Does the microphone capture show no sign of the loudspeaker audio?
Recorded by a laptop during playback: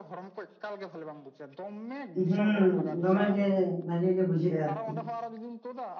No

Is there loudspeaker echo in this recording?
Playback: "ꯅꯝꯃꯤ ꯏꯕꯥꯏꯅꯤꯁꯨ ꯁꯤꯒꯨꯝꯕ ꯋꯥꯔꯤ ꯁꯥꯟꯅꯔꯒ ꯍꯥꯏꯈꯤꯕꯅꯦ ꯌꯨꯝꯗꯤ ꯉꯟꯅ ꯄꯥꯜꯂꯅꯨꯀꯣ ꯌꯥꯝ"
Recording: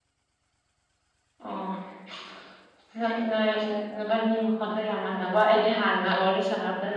No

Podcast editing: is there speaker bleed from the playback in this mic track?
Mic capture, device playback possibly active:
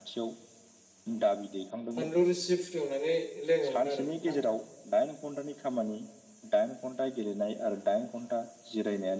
Yes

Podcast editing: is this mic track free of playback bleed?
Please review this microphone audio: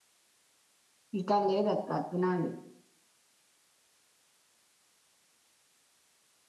Yes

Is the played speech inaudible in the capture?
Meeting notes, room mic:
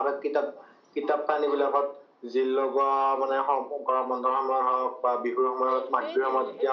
No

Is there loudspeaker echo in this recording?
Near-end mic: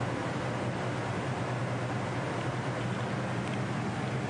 No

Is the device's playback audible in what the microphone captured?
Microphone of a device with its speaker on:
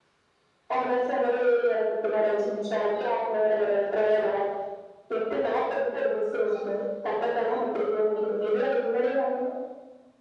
Yes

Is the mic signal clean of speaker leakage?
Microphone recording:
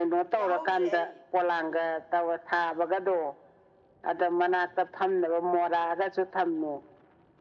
No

